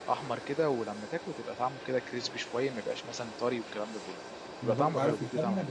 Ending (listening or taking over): taking over